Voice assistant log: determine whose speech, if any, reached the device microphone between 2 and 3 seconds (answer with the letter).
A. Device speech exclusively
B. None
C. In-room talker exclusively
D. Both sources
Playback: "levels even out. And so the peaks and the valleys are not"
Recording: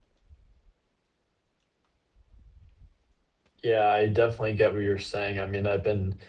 B